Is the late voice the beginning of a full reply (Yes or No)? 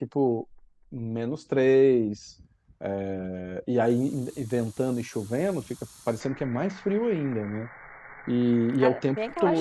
Yes